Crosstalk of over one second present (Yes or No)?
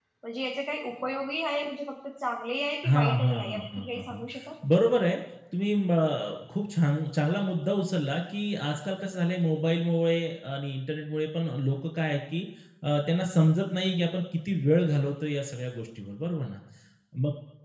Yes